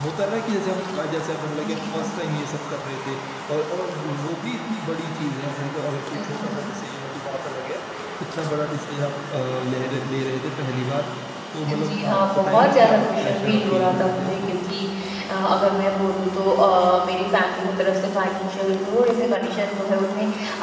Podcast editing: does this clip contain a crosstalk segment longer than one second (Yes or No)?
Yes